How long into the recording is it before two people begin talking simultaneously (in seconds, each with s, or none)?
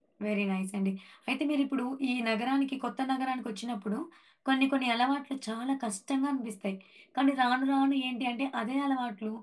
none